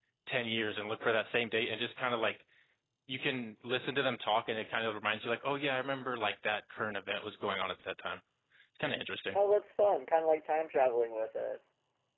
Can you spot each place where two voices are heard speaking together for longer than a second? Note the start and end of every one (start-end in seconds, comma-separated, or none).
none